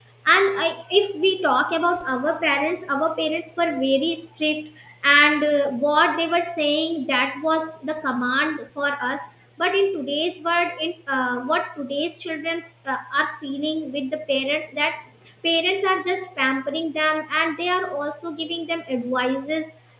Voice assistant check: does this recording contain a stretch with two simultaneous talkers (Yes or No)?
No